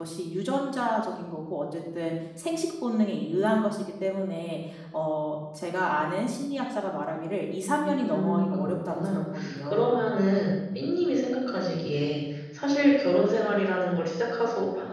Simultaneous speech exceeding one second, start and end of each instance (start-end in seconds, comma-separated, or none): 7.8-10.0